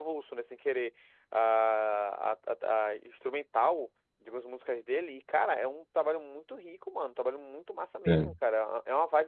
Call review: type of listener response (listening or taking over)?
listening